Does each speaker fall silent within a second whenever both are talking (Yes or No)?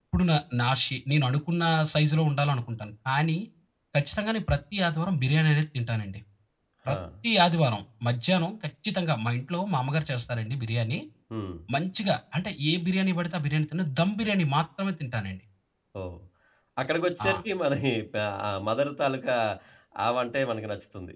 Yes